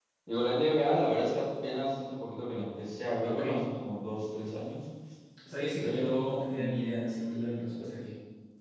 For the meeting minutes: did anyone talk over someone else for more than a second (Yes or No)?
Yes